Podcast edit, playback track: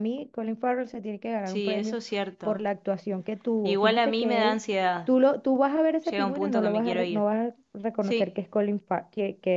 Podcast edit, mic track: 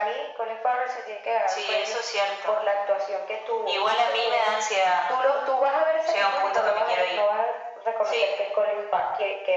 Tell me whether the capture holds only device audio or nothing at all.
Yes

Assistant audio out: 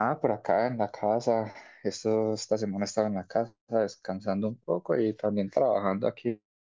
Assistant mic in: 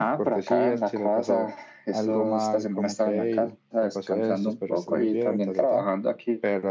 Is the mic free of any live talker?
No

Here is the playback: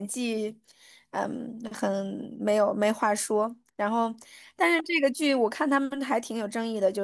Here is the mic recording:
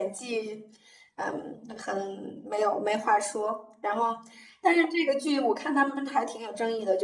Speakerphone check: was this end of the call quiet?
Yes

